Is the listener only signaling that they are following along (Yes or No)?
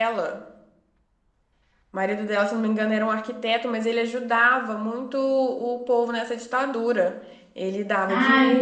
No